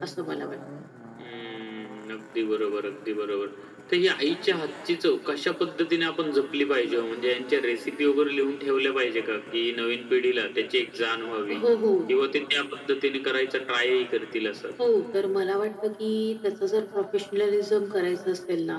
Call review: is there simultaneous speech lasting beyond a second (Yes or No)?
No